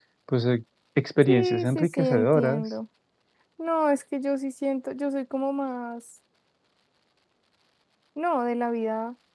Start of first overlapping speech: 1.2 s

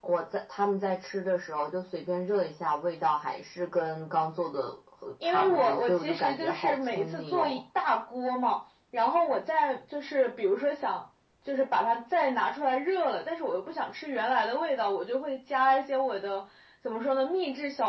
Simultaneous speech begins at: 5.2 s

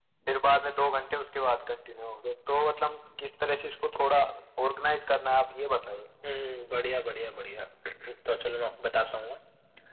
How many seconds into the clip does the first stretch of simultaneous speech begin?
none

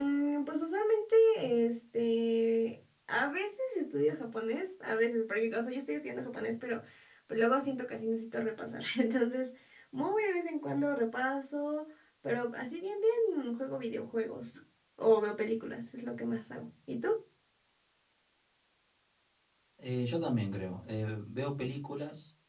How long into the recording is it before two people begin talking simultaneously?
none

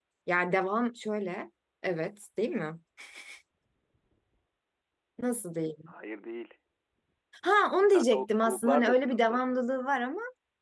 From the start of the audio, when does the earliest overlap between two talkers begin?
7.8 s

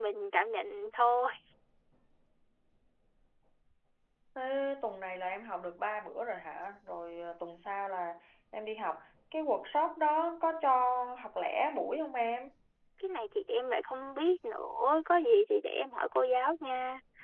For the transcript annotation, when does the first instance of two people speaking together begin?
none

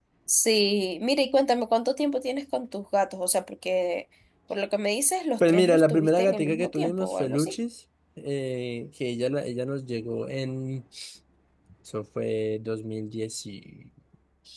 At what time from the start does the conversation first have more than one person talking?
5.4 s

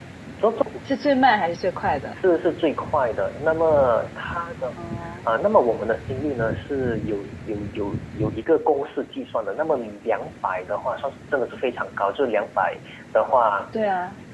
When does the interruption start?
none

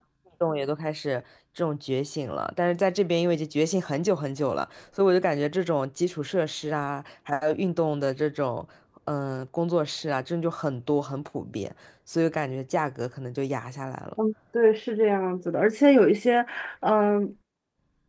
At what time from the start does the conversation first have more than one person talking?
none

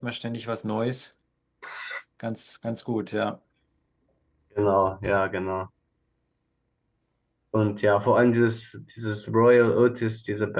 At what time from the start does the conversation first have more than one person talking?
none

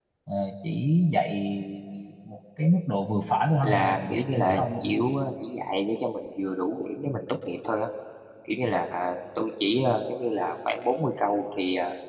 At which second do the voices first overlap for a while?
3.6 s

